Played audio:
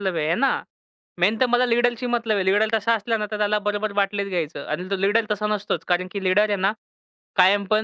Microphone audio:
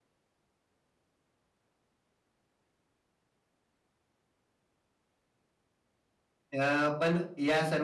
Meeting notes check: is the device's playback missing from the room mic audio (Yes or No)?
Yes